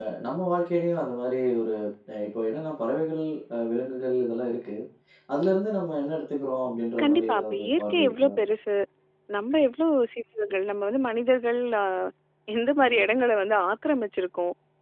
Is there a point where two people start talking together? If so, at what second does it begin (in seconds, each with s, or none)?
7.0 s